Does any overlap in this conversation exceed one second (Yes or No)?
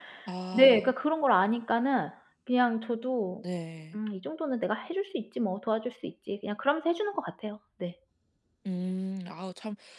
No